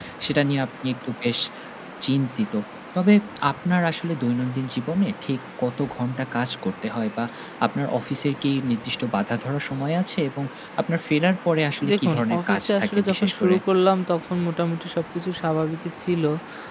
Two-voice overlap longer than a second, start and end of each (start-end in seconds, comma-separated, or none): 11.9-13.6